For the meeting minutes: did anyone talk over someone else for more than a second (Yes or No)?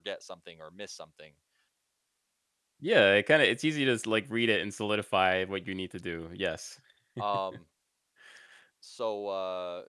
No